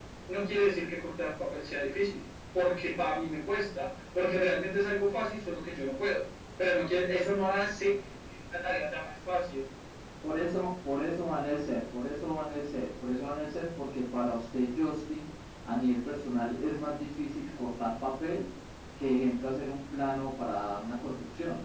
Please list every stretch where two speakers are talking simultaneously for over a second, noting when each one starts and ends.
none

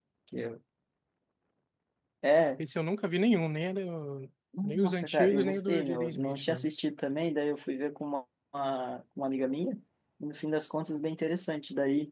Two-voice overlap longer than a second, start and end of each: 4.6-6.6

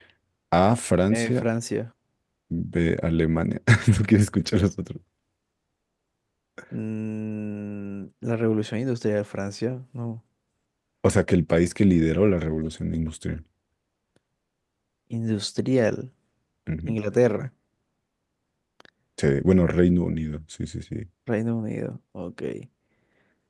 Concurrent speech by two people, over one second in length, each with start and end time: none

